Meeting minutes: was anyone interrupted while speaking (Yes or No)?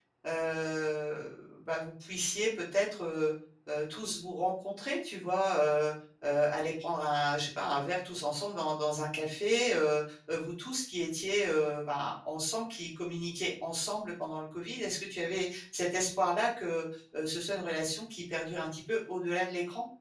No